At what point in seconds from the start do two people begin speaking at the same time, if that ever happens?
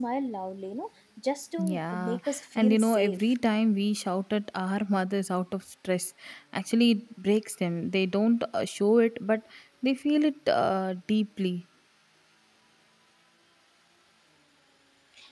1.6 s

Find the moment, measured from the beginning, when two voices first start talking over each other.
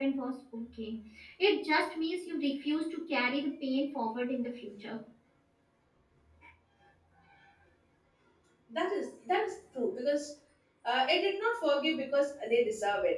none

